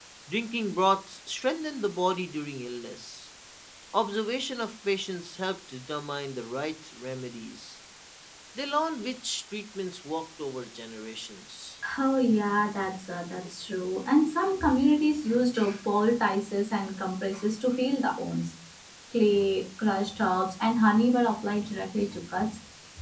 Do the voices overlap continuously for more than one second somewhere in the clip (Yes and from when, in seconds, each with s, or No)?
No